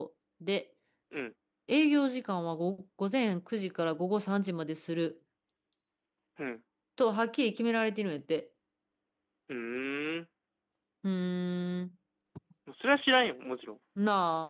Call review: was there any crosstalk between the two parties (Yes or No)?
No